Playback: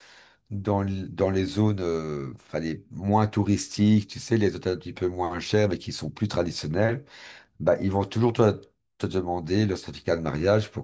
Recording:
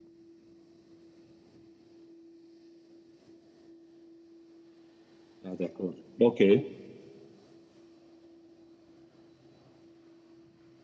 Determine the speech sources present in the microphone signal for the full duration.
user only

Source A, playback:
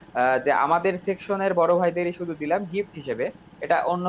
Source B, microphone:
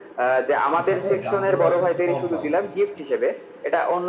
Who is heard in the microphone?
both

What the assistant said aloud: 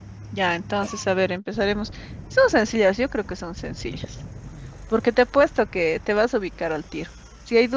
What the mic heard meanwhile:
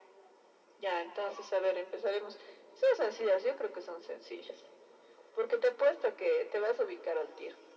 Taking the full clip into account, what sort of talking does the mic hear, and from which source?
echo only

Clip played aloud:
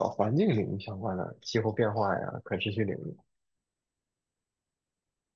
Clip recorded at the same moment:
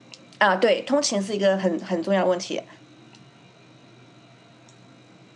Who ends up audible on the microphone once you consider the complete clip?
user only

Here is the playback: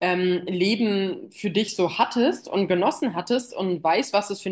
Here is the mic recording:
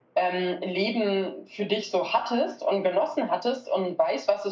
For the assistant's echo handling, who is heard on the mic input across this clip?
echo only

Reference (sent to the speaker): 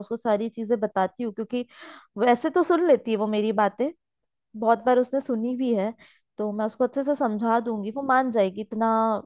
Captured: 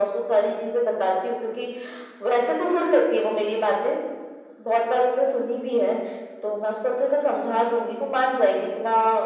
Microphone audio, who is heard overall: echo only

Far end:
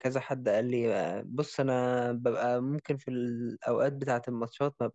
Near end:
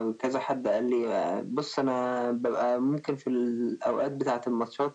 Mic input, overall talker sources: echo only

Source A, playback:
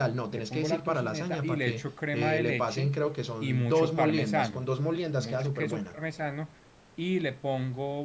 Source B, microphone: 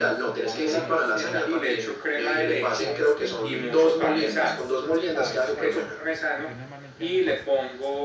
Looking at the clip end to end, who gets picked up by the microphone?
both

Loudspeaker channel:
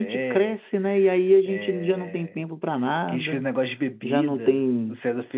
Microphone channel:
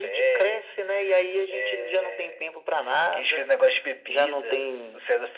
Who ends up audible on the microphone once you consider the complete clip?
echo only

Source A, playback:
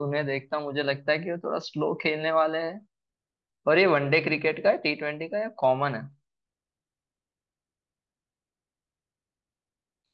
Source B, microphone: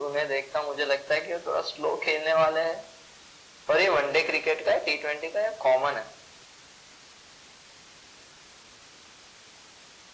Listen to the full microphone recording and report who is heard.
echo only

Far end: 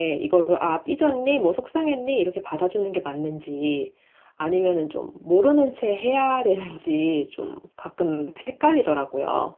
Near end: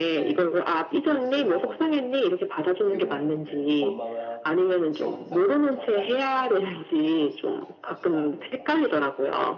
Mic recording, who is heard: both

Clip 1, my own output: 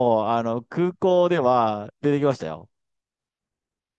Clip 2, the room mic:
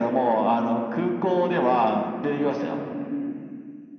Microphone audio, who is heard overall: echo only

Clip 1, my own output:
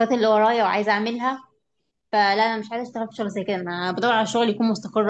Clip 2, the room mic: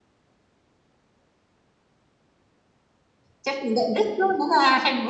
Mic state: user only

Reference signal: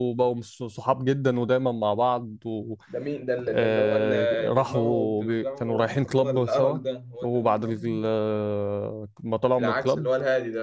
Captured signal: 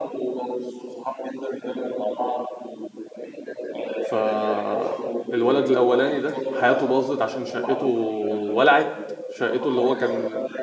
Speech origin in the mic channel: both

